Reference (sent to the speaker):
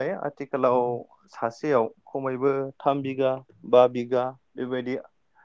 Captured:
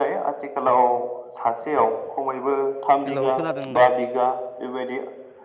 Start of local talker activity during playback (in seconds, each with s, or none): 3.1 s